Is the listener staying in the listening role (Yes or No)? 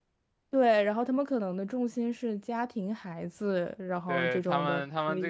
No